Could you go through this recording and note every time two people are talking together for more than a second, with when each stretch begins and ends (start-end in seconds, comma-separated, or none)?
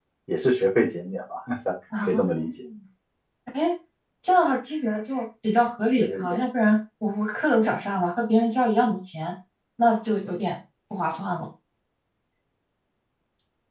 none